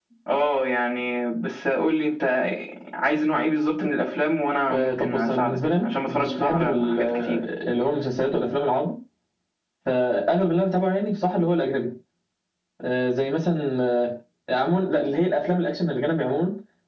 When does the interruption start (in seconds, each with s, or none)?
4.7 s